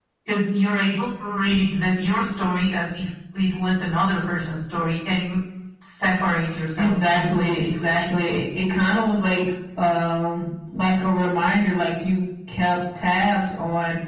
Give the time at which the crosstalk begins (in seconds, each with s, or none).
6.8 s